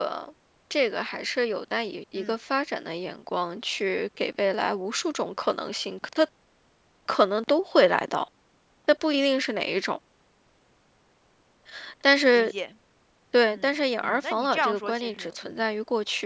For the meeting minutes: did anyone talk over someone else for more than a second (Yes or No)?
Yes